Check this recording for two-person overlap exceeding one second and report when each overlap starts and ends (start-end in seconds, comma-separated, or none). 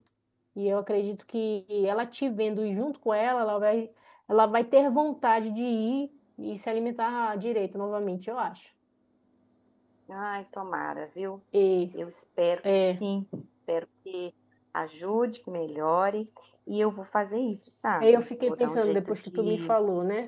18.0-19.8